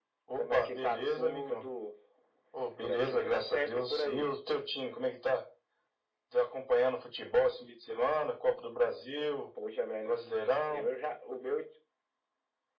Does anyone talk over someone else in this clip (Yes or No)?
Yes